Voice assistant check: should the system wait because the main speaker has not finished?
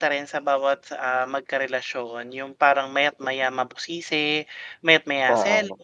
Yes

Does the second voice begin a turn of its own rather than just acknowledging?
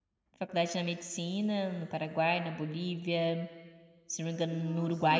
No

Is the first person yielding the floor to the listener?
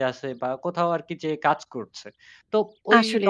No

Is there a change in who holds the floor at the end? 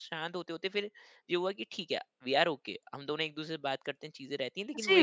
Yes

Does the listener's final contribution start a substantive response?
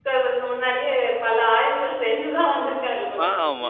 Yes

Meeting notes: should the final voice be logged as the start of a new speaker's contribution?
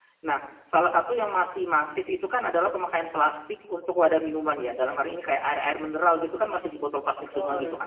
No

